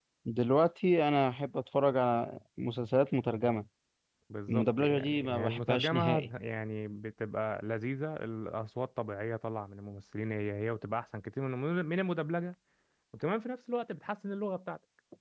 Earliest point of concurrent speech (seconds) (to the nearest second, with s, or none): 4 s